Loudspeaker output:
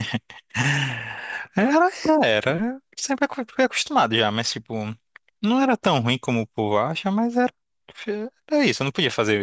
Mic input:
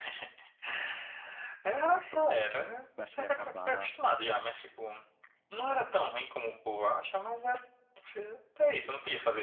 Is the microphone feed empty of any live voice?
No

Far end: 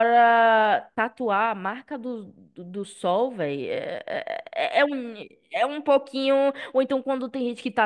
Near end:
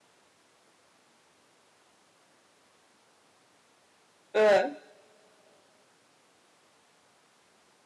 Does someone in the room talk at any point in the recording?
Yes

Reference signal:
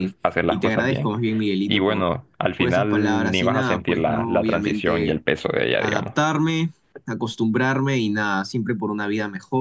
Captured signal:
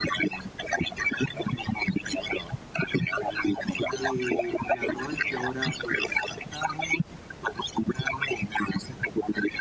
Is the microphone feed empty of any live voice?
No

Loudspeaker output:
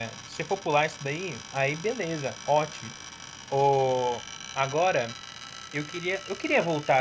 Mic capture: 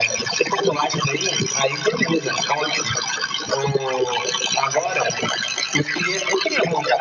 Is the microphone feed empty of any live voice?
Yes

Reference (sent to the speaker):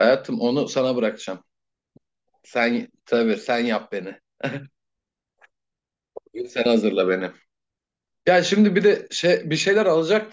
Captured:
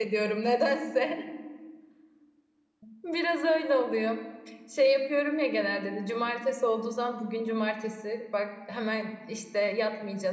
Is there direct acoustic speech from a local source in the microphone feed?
Yes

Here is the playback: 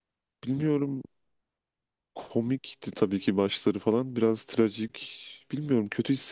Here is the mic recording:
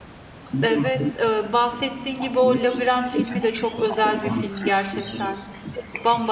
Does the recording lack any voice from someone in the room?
No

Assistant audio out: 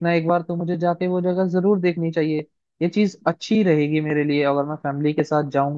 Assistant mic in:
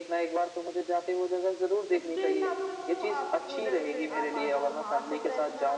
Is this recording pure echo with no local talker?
No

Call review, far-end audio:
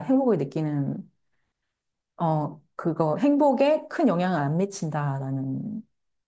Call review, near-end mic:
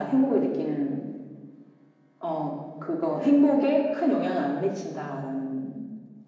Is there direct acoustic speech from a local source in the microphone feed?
No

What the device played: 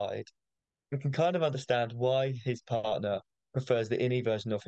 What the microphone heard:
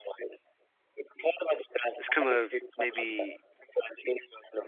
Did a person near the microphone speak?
Yes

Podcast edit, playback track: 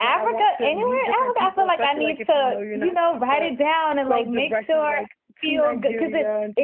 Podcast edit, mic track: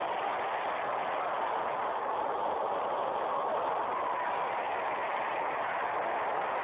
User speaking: No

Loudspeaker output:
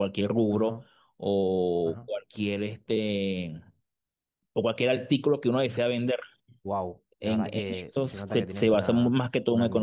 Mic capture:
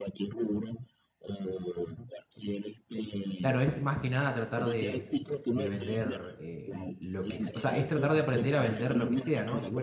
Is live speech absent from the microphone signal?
No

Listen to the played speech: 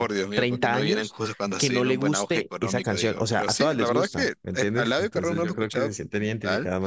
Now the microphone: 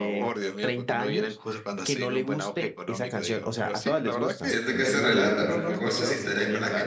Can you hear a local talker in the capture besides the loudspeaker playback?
Yes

